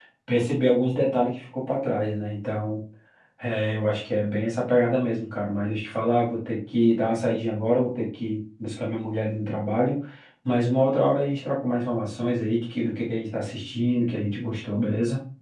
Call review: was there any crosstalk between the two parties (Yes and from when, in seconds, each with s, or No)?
No